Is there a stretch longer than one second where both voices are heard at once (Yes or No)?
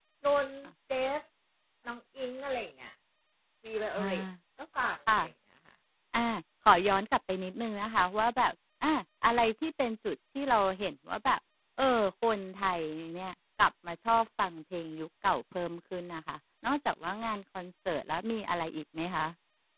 No